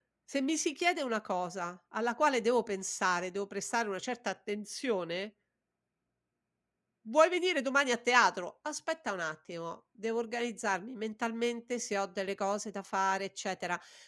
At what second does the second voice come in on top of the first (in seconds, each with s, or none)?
none